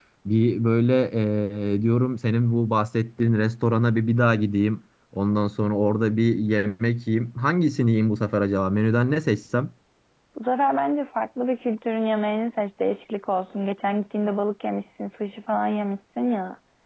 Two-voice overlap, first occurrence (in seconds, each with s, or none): none